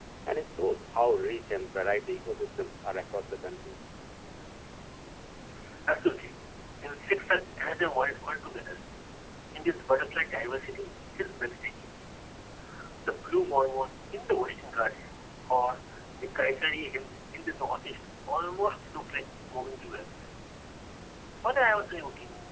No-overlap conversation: Yes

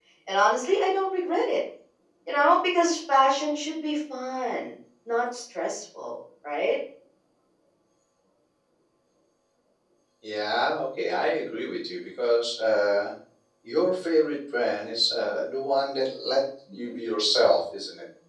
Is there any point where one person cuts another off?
No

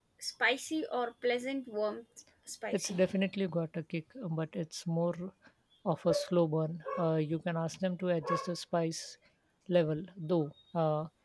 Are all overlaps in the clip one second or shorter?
Yes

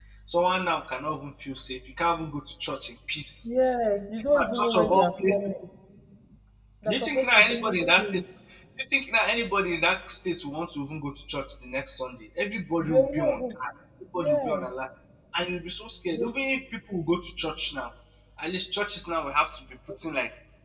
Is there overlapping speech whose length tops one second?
Yes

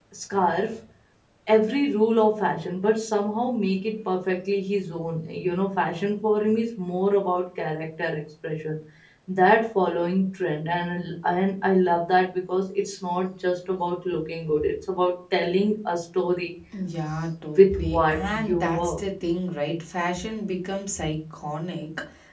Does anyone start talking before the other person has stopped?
Yes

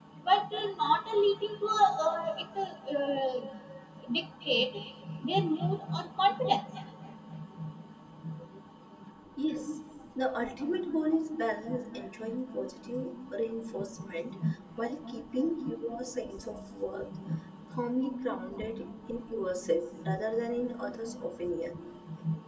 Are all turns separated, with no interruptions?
Yes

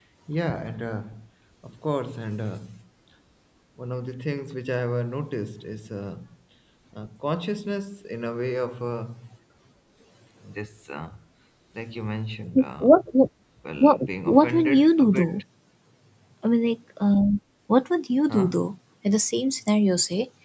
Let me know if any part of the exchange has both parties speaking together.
Yes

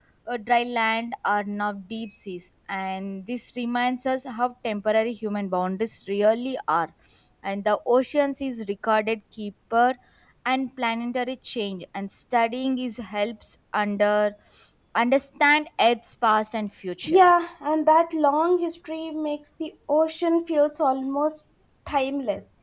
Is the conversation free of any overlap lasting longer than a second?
Yes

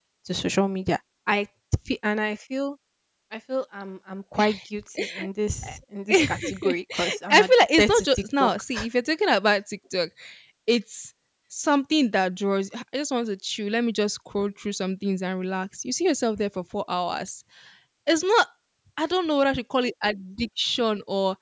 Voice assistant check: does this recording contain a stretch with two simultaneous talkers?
Yes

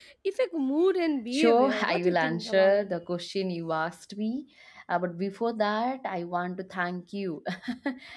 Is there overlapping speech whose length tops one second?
Yes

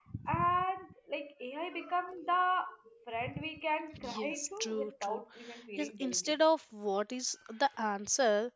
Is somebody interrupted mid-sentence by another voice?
Yes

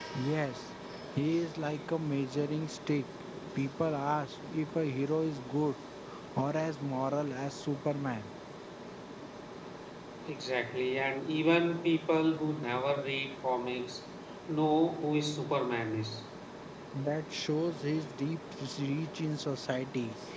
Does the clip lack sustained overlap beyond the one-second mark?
Yes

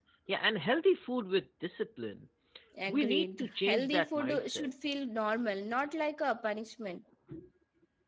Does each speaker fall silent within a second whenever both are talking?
No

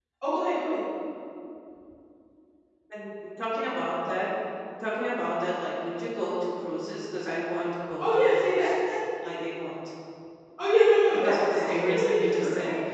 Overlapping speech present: Yes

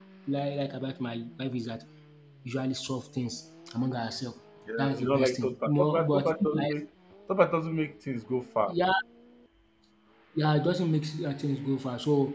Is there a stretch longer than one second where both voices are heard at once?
Yes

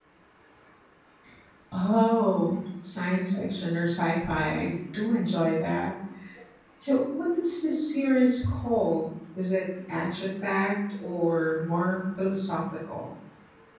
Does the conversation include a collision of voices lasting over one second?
No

